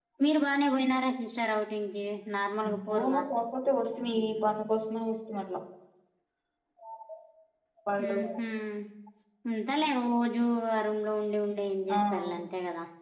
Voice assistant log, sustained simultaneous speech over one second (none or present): none